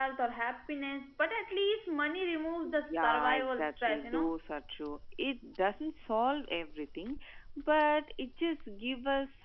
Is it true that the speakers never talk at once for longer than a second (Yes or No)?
No